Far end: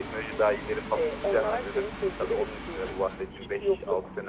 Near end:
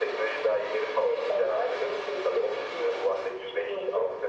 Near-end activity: none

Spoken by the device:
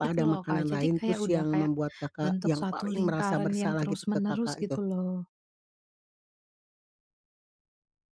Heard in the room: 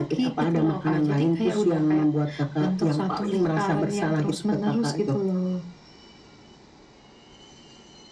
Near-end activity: none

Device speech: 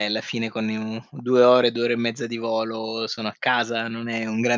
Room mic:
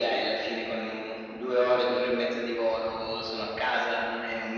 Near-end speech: none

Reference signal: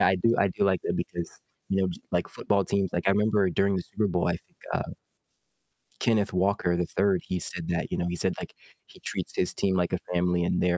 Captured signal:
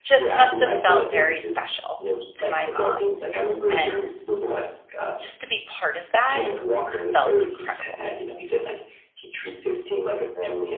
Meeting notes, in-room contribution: present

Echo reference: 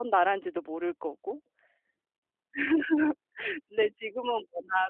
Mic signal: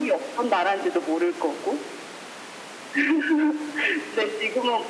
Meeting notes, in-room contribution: none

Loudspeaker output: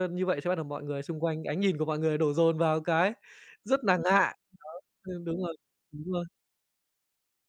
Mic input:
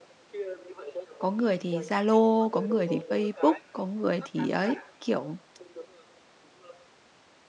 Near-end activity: present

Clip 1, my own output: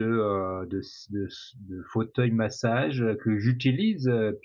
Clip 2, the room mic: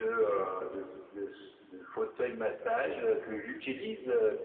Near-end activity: none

